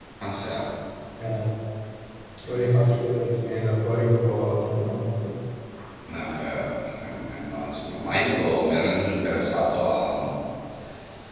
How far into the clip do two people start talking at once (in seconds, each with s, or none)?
none